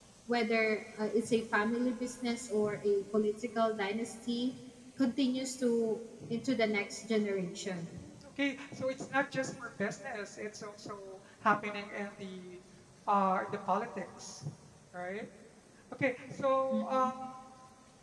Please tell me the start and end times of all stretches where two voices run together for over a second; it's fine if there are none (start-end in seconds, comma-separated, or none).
none